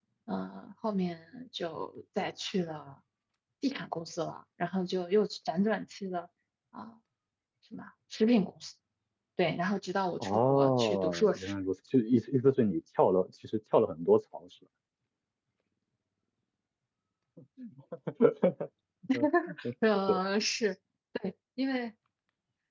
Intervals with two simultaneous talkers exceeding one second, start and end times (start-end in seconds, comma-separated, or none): 10.2-11.5